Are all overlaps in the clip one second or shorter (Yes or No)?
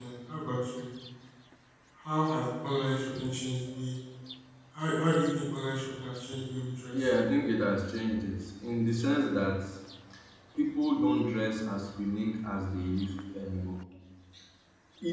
Yes